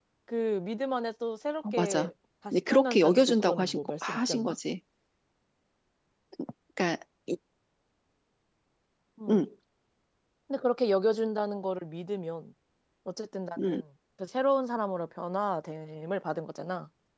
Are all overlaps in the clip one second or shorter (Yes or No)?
No